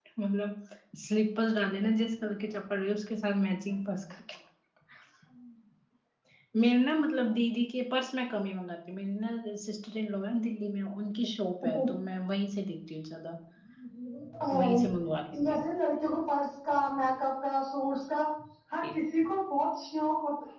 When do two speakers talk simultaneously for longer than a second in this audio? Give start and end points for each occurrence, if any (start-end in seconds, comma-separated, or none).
none